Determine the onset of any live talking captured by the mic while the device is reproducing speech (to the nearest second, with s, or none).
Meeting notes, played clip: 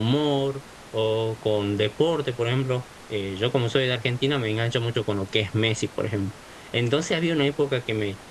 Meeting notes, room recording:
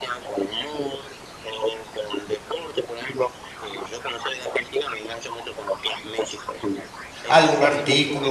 7 s